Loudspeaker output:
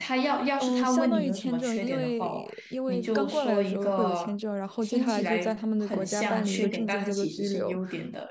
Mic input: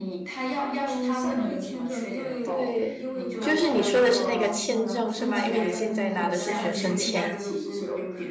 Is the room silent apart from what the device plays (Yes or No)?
No